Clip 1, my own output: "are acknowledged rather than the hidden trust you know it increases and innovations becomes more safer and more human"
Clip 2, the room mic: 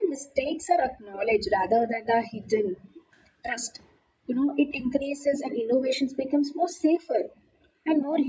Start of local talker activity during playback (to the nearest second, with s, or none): none